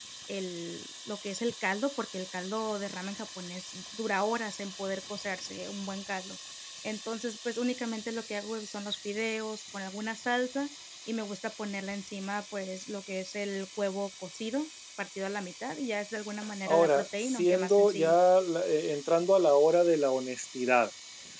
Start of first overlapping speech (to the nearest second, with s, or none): 17 s